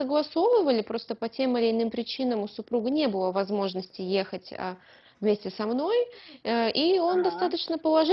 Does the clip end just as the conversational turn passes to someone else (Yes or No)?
No